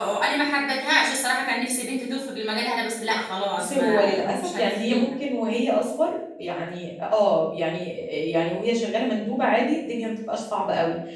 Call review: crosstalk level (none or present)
present